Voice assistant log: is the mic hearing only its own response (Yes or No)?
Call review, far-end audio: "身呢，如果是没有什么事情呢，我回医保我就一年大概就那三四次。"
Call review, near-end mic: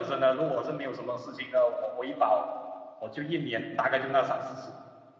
Yes